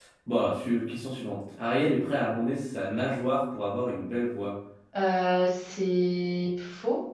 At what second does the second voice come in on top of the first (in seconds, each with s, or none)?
none